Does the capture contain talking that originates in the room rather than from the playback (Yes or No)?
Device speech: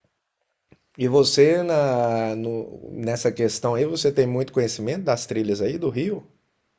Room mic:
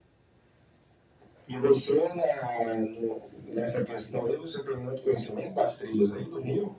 No